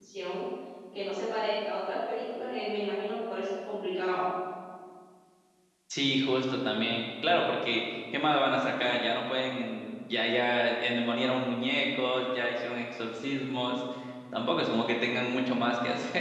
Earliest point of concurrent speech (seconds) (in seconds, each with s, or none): none